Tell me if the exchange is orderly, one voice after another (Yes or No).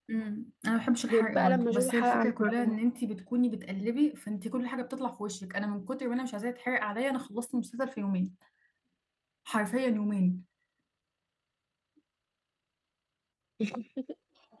No